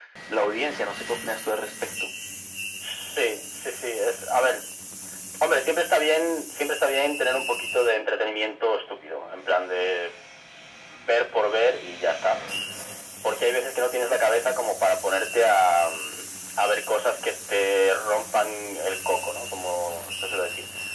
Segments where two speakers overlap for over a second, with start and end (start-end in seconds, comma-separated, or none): none